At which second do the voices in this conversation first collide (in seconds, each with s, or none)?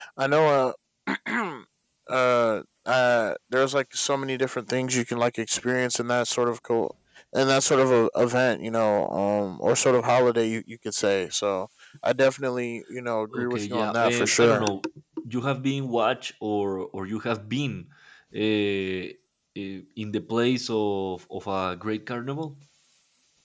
13.3 s